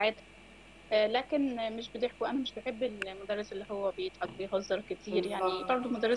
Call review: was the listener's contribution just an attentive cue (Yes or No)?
Yes